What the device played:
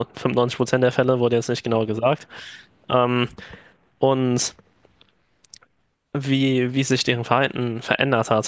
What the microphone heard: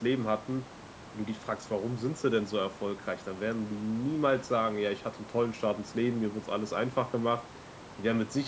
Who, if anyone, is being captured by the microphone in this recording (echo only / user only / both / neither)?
user only